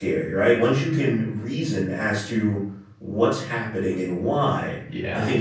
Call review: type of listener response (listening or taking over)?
listening